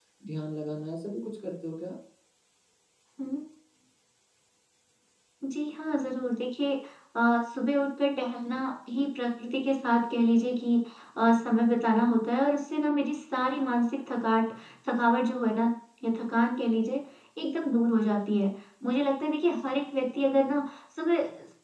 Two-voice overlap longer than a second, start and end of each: none

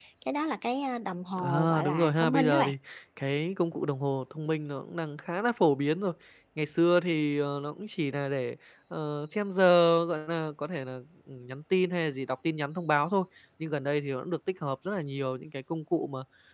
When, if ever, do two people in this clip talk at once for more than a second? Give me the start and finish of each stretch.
1.4-2.7

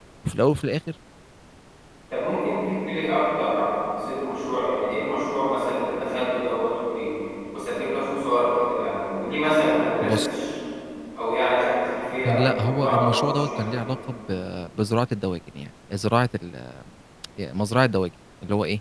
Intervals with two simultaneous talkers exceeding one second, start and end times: 12.2-13.7

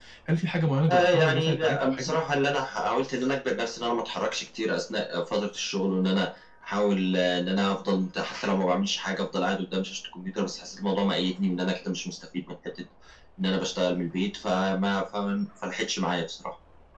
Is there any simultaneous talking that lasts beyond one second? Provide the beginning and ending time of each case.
0.9-2.1

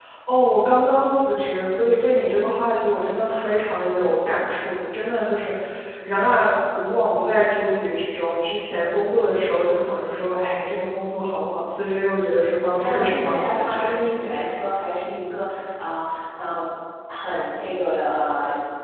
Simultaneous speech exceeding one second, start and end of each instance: 12.3-13.8

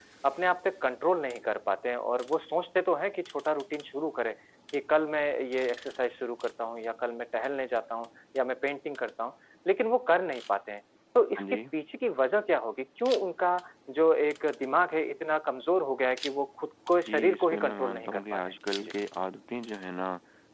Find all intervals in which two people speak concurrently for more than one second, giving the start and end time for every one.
17.1-18.9

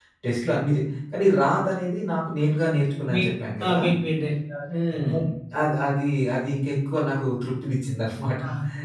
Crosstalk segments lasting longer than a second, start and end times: none

